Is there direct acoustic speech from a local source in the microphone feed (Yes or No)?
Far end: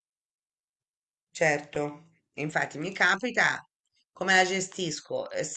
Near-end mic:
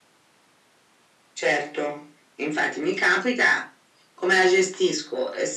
No